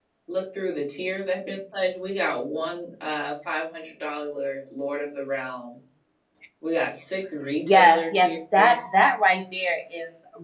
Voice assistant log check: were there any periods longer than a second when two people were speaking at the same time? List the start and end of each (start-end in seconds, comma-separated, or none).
7.6-8.9